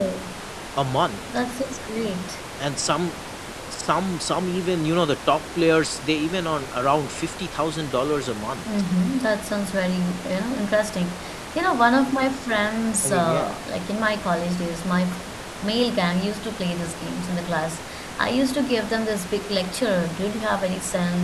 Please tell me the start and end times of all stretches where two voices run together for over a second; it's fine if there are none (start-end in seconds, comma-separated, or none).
none